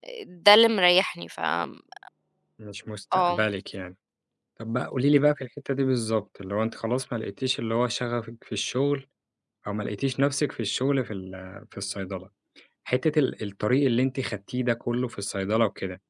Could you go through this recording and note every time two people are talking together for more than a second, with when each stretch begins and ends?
none

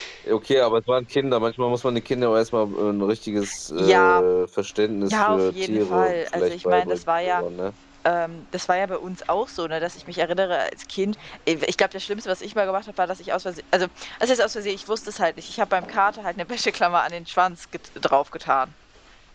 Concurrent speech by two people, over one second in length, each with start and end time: 5.1-7.4

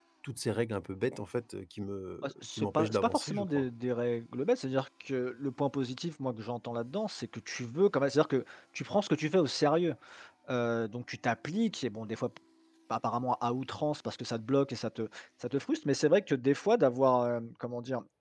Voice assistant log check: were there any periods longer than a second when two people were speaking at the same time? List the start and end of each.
2.2-3.6

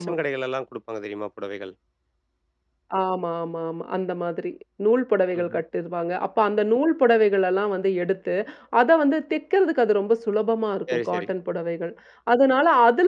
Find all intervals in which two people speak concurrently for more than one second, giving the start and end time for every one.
none

